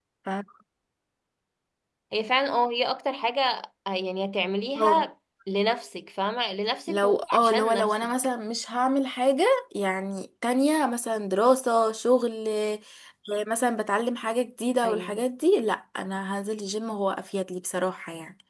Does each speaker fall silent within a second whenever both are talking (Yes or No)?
No